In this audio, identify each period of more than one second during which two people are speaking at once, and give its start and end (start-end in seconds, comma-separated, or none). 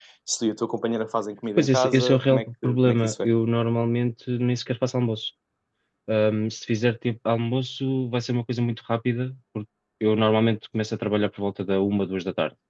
1.6-3.3